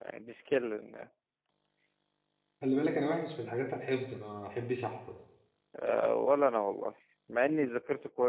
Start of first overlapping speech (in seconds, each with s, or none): none